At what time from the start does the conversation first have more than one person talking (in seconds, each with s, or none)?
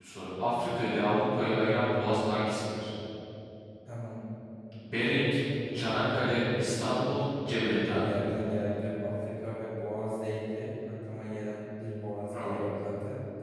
5.7 s